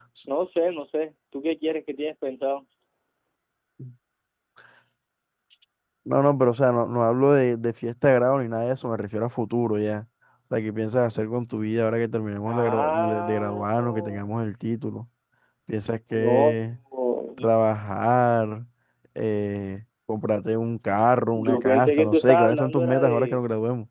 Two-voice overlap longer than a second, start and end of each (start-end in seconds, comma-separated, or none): 12.4-14.2, 21.4-23.4